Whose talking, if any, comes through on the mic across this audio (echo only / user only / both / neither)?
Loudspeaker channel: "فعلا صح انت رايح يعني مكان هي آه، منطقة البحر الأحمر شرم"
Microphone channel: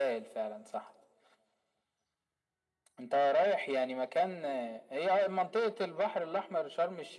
echo only